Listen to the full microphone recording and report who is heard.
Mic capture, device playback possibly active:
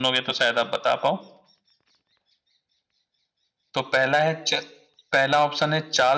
user only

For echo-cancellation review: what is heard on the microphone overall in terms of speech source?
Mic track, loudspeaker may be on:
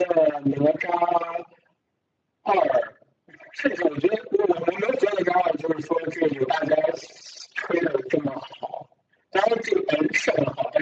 echo only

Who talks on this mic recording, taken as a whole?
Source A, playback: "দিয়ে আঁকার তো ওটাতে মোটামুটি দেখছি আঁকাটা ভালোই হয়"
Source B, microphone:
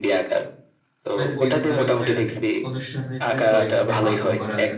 both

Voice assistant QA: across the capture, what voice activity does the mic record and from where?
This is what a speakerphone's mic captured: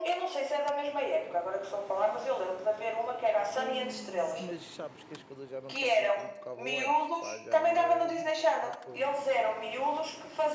both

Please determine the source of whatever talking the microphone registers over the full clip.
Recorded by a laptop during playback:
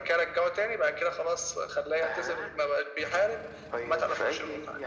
echo only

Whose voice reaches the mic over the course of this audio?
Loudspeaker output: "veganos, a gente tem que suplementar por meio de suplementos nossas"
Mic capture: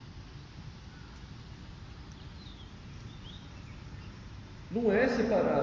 user only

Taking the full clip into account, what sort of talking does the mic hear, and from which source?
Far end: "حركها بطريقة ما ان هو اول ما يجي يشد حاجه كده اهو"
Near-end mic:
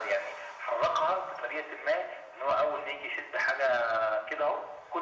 echo only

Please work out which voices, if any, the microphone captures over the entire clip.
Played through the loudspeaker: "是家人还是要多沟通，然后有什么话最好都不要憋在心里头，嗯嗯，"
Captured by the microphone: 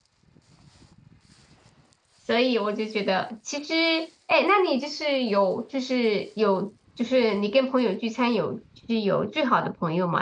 user only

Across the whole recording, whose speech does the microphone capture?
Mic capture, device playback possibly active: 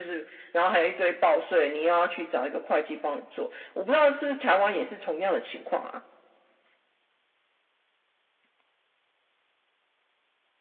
echo only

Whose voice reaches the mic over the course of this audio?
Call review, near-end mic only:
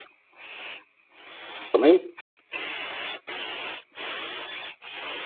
user only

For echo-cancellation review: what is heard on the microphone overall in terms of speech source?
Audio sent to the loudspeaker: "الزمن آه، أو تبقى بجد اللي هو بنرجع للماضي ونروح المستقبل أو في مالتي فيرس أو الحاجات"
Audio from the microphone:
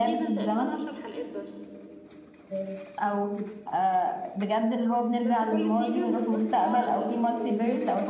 both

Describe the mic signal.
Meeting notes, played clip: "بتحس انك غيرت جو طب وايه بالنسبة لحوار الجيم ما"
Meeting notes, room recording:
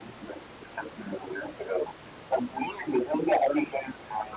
echo only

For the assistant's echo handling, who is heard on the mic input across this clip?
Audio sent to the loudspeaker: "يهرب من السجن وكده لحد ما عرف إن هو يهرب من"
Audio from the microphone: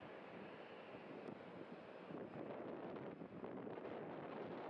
neither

